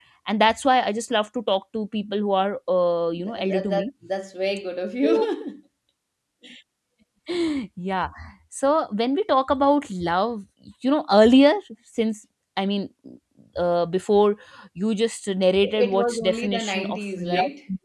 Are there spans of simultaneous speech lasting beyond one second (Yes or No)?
Yes